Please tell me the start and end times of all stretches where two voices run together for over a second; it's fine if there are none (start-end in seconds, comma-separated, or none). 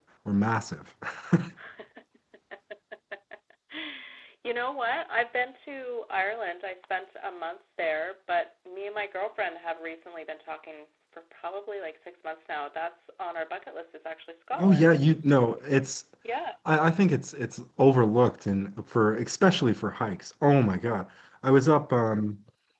none